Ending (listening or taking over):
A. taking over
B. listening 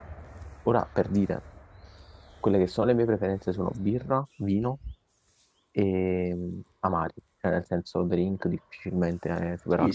A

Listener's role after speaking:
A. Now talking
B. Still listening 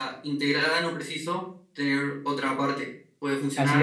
A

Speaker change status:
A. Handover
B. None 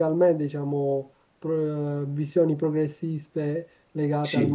B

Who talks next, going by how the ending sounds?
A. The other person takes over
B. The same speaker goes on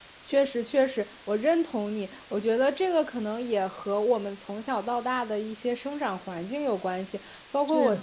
B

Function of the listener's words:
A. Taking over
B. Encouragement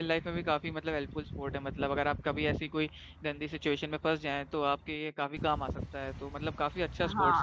A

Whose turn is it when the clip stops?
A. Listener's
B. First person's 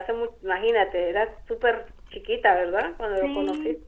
A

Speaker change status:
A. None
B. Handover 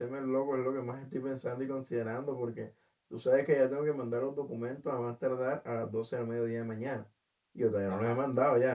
A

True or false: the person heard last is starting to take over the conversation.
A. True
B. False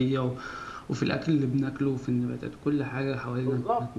A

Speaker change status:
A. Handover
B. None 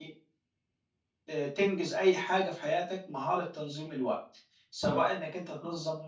B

